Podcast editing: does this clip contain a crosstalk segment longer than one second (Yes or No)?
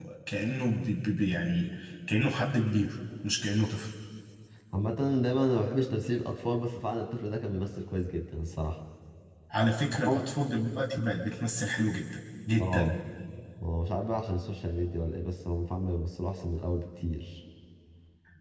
No